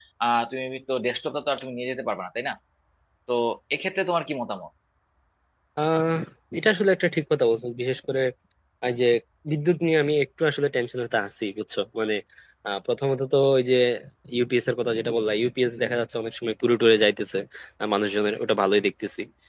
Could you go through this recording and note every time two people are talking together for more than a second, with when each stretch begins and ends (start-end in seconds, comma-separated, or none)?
none